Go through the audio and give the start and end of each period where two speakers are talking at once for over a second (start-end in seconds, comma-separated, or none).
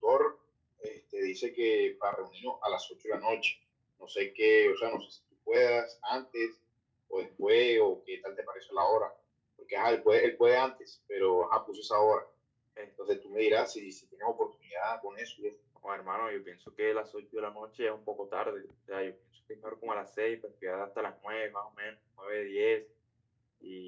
none